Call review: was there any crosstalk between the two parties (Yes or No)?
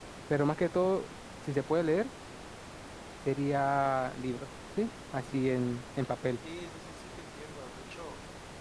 No